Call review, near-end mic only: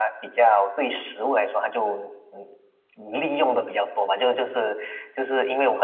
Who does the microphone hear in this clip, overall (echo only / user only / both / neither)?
echo only